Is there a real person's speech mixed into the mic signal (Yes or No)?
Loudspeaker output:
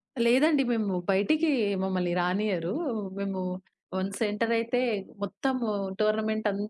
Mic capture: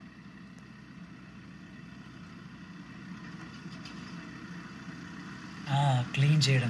Yes